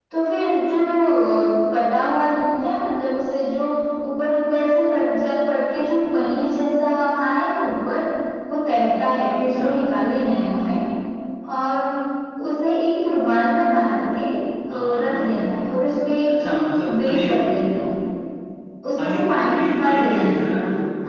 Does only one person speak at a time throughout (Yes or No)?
No